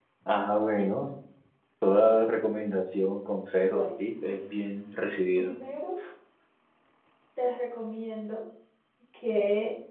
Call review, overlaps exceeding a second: none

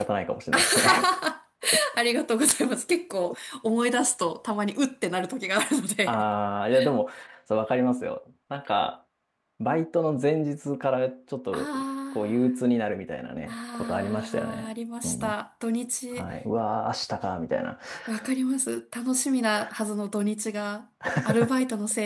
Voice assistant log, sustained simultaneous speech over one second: present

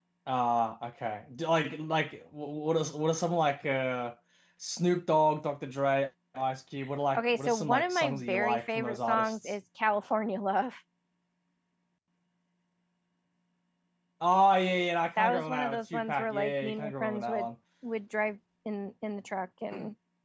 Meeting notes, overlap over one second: present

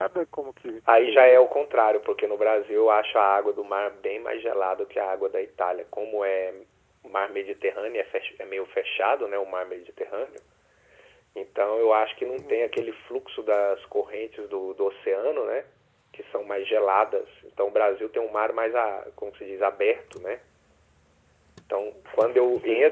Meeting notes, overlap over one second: none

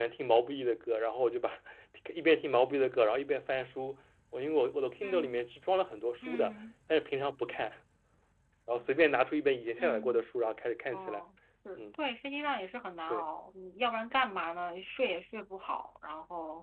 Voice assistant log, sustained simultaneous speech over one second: none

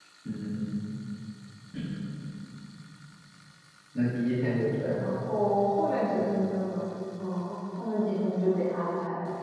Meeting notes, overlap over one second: none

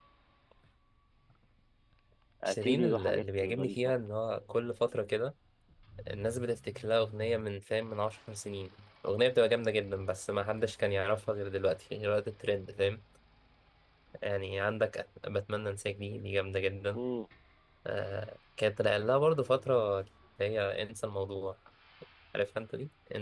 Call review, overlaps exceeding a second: present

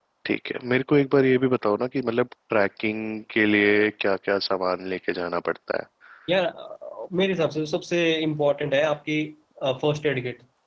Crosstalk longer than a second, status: none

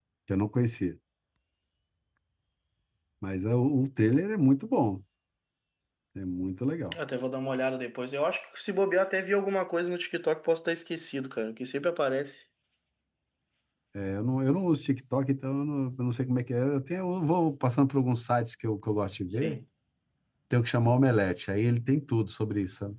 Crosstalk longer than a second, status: none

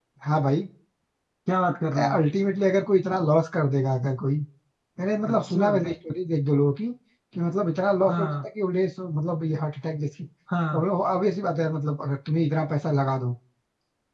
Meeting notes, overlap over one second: none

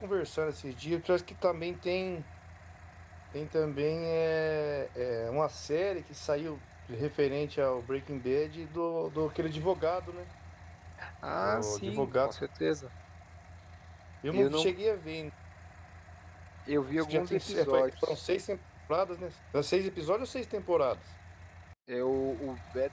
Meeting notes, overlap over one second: present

